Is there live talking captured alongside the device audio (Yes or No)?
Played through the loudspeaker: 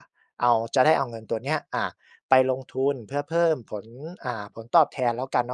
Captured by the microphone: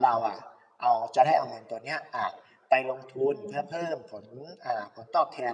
Yes